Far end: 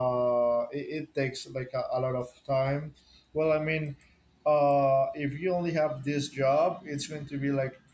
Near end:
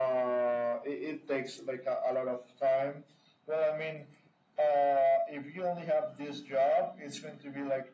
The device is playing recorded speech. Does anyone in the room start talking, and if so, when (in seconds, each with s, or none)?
none